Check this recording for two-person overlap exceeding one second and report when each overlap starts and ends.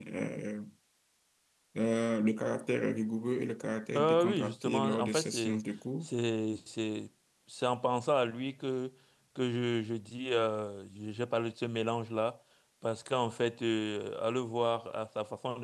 4.0-5.6

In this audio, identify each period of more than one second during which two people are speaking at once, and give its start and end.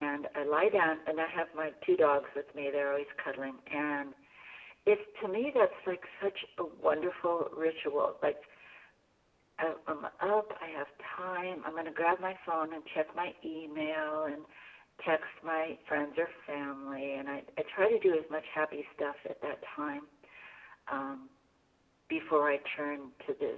none

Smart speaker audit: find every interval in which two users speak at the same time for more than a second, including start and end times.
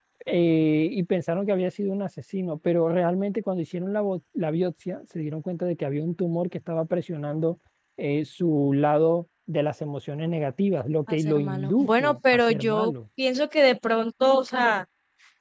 11.1-12.9

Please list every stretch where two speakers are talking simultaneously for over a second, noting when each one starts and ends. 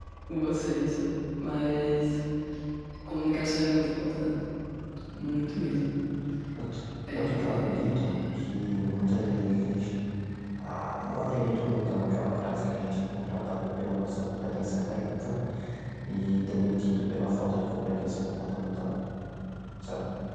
7.1-8.5

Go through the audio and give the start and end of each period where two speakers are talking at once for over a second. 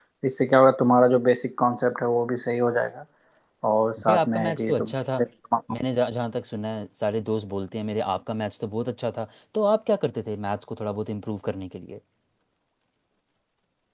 4.0-5.2

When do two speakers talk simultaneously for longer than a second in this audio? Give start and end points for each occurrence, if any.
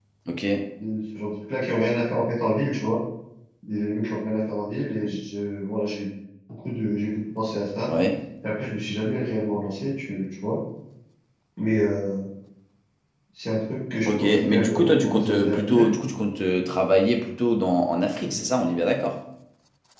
14.0-15.8

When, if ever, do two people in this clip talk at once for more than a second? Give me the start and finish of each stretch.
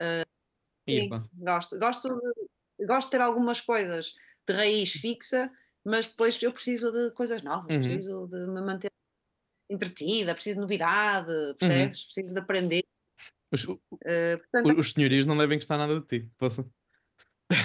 none

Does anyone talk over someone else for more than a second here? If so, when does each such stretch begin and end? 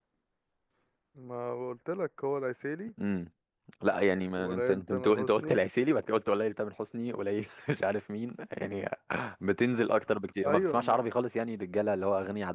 4.4-5.6

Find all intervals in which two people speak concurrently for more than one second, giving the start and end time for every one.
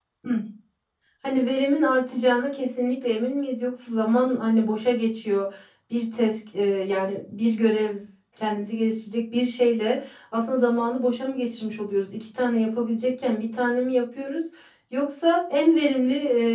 none

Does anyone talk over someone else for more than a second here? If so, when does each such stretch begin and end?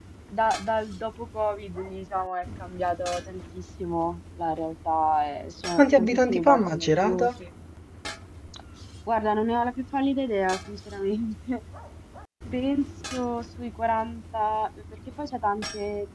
5.8-7.3

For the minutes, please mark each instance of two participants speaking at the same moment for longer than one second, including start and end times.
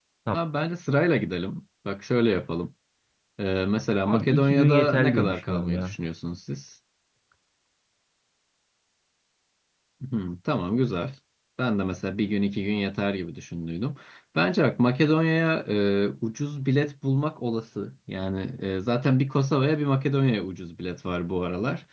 4.0-6.0

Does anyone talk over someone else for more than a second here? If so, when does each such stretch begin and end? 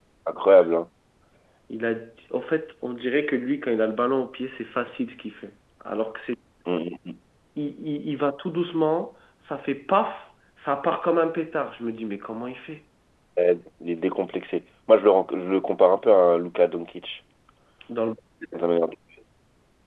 none

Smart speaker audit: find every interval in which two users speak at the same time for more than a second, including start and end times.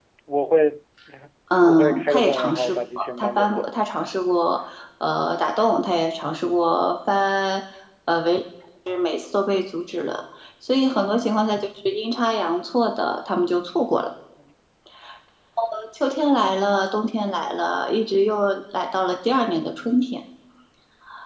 1.6-3.7

